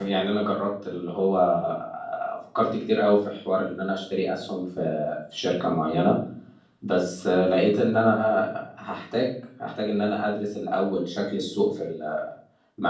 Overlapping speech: No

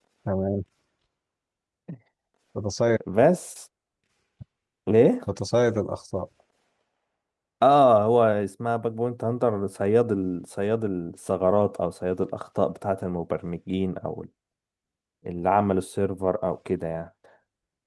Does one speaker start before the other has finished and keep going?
No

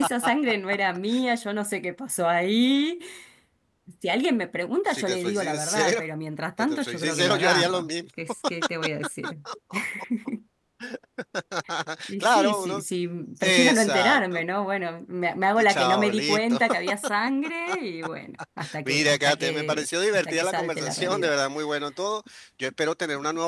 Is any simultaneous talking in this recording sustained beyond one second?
Yes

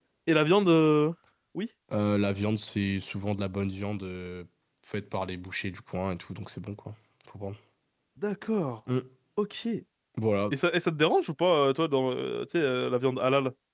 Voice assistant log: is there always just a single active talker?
Yes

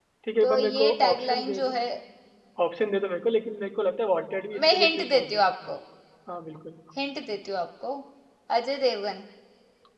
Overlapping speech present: Yes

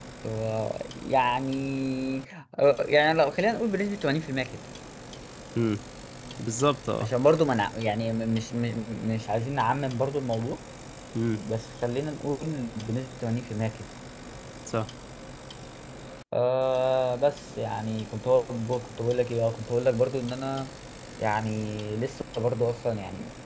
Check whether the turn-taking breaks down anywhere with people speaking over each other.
No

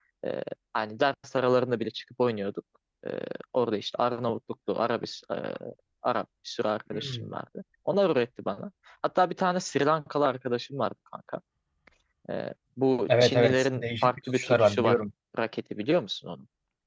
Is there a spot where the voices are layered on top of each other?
Yes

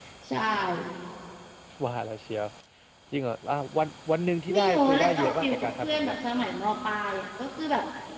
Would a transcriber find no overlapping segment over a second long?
No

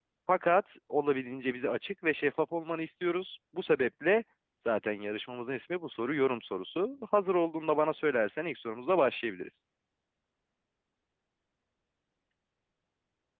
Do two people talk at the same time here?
No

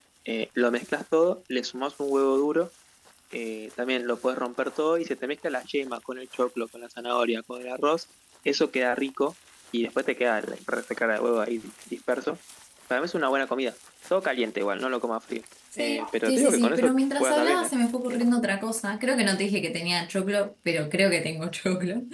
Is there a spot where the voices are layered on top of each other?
Yes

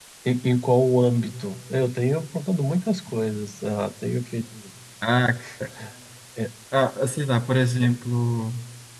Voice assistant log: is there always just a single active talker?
Yes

